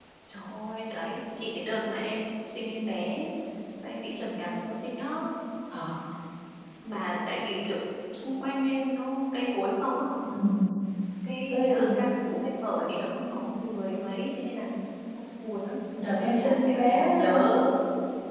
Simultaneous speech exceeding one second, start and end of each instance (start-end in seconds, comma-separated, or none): 16.1-17.3